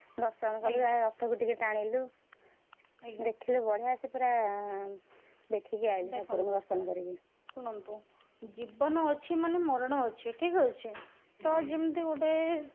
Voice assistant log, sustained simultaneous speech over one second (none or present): none